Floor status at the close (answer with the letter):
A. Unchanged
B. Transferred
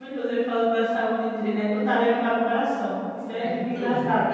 B